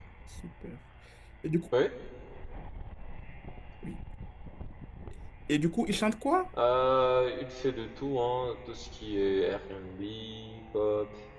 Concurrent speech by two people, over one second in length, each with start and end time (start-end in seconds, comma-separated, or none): none